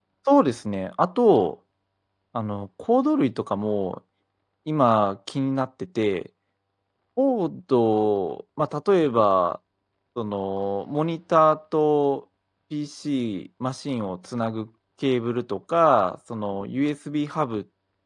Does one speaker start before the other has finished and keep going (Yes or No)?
No